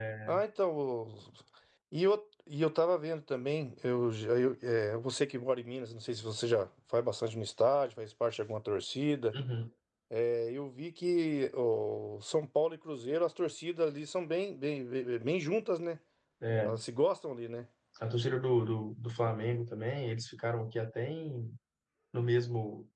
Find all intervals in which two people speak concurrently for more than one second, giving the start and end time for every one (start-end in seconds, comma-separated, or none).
none